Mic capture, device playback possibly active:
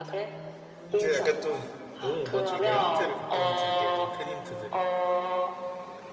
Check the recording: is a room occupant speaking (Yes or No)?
Yes